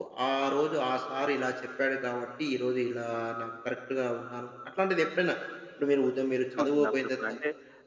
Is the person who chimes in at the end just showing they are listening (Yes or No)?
No